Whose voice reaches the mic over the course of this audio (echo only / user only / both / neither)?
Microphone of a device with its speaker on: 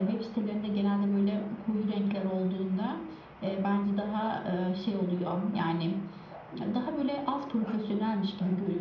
echo only